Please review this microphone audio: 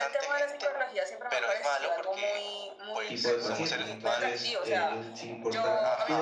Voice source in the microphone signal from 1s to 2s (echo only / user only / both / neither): echo only